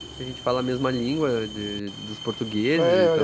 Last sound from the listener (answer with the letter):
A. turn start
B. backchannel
A